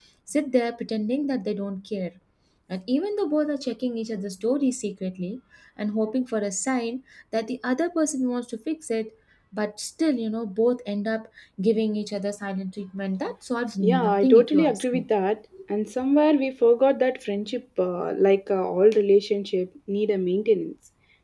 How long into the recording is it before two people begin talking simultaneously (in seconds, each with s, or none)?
13.8 s